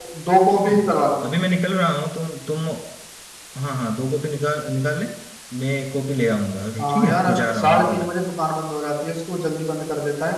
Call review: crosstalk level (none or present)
present